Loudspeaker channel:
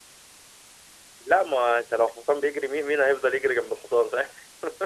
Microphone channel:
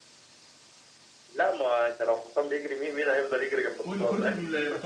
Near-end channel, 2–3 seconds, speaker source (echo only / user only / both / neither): echo only